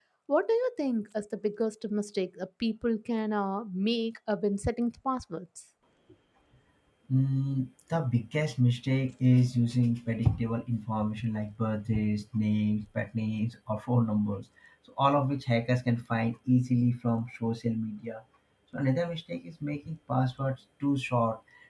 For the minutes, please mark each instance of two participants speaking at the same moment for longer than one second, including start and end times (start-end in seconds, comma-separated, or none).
none